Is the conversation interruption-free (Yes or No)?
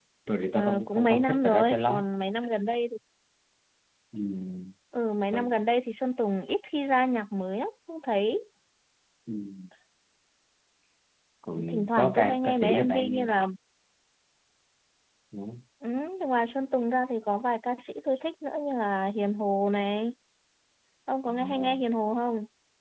No